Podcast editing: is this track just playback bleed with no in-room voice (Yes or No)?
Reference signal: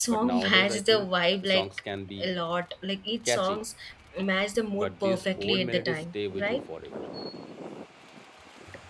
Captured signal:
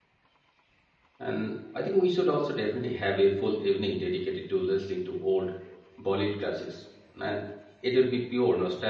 No